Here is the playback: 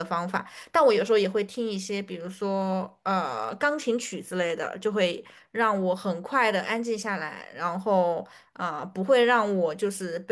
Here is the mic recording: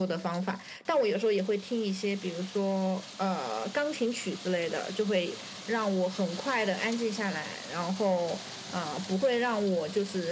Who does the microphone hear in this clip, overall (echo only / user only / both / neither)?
echo only